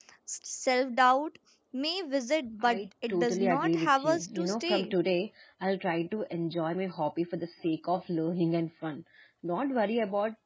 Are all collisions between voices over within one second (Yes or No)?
No